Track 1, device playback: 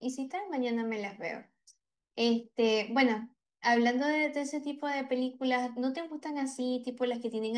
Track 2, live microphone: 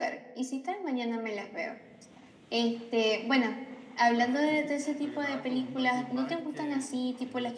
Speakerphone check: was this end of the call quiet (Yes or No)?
No